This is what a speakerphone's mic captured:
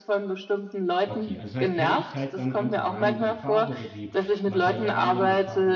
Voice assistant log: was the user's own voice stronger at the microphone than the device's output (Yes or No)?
No